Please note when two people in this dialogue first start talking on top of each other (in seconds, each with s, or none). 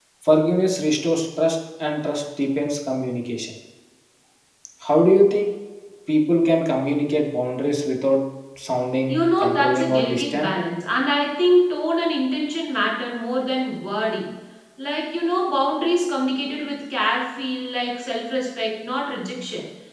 9.1 s